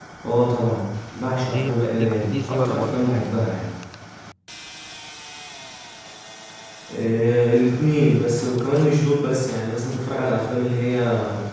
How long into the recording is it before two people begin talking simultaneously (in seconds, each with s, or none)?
1.4 s